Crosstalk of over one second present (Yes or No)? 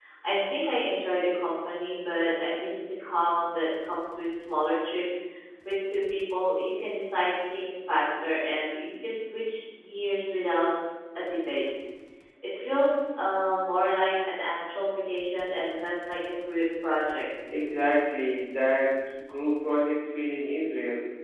No